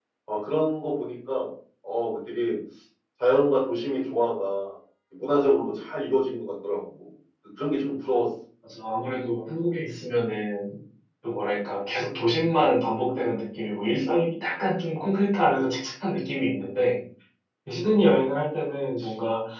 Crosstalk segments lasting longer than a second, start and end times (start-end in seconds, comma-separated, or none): none